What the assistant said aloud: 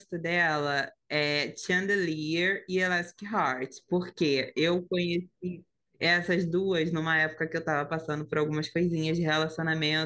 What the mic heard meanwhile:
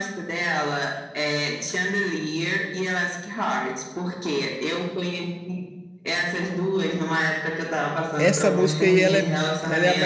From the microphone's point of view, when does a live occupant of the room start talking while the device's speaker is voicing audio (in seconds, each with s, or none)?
8.2 s